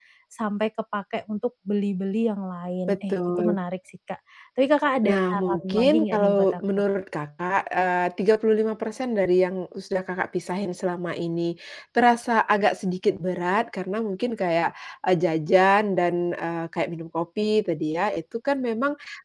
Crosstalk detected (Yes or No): Yes